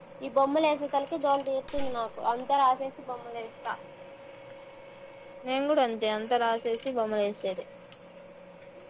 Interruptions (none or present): none